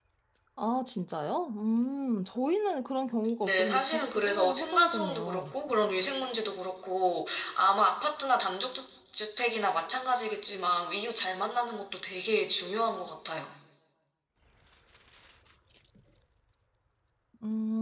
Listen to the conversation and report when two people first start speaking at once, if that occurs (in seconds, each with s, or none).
3.4 s